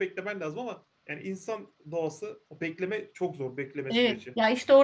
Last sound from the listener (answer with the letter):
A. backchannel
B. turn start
B